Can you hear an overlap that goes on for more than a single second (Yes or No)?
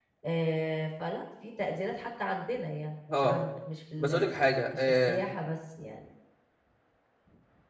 No